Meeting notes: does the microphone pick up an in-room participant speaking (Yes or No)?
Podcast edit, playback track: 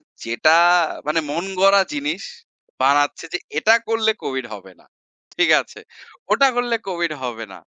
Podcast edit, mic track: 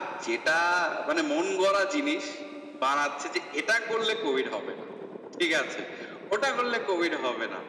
No